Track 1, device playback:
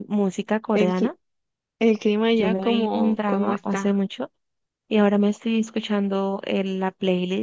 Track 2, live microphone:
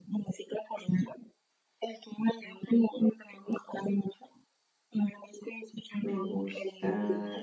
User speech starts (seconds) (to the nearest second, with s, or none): 6 s